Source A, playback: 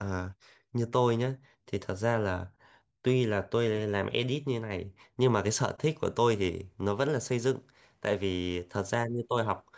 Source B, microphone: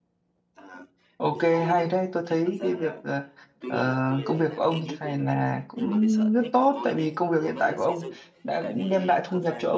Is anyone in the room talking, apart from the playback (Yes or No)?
Yes